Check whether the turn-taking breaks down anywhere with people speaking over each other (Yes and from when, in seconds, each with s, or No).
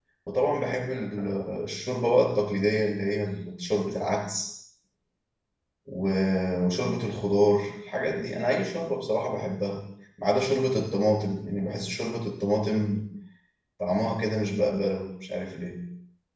No